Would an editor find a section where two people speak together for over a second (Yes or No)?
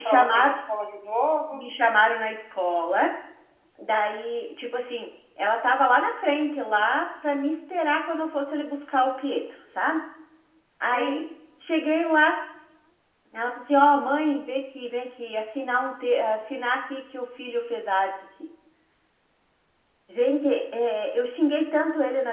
No